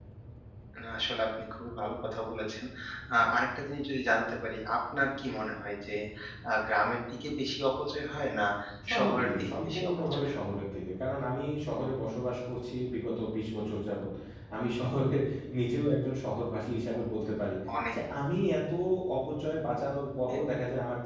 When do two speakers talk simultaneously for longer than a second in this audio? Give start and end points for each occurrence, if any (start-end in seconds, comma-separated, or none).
8.9-10.4